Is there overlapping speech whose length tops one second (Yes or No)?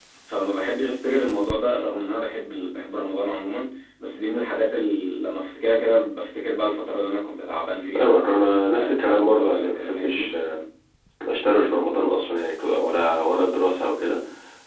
Yes